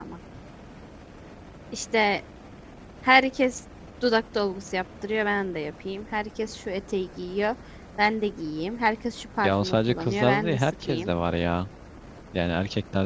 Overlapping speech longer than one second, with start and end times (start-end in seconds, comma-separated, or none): 9.4-11.1